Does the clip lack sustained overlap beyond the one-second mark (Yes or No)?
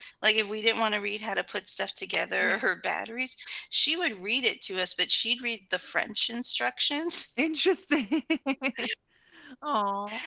Yes